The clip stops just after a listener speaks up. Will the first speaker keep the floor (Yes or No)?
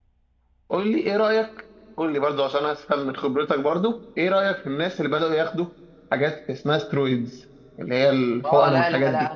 No